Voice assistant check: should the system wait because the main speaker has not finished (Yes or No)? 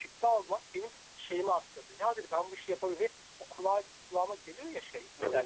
Yes